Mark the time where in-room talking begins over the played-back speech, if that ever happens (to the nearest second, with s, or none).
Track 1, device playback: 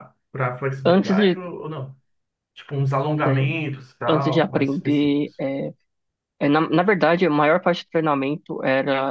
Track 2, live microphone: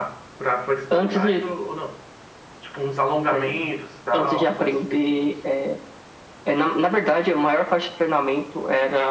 none